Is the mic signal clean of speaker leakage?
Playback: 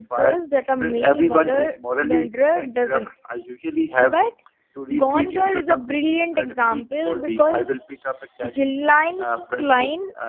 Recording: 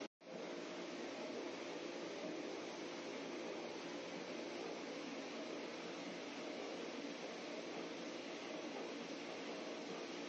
Yes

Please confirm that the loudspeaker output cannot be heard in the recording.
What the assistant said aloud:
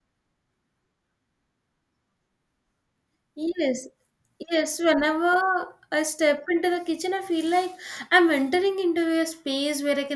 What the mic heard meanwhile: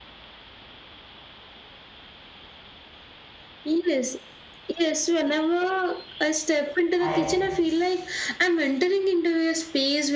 No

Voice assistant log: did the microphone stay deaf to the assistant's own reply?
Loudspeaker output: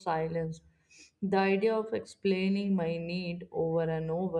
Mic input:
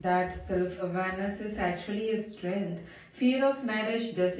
Yes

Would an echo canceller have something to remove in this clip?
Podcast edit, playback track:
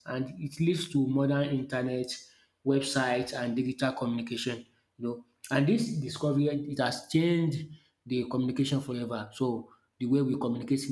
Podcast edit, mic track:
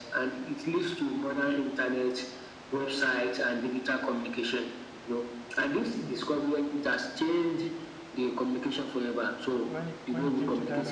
Yes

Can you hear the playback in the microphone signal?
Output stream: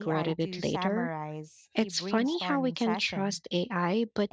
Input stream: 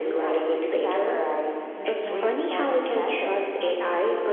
Yes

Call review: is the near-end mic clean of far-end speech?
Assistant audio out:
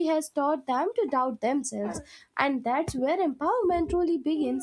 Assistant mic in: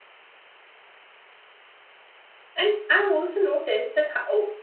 Yes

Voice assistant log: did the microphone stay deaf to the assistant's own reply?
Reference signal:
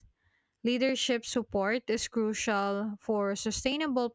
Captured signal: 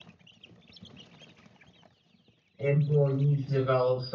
Yes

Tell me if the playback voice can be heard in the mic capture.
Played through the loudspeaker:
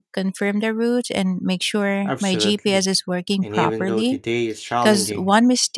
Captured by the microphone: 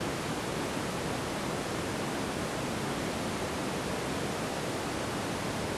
No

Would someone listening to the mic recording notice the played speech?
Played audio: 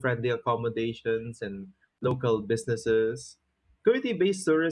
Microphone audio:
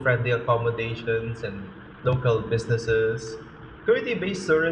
Yes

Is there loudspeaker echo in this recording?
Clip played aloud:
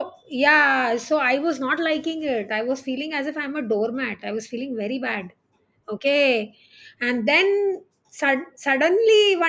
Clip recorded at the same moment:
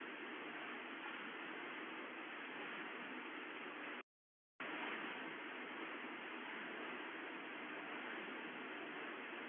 No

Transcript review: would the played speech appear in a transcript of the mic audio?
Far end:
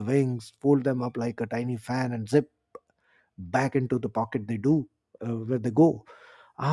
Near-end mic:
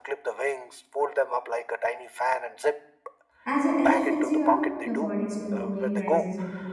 Yes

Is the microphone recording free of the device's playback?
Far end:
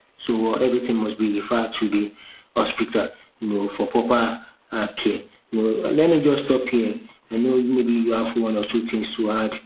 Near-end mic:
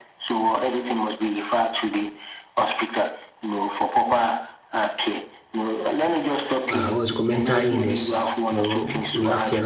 No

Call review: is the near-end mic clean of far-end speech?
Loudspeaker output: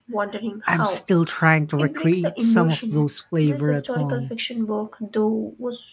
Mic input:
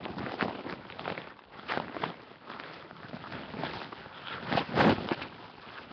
Yes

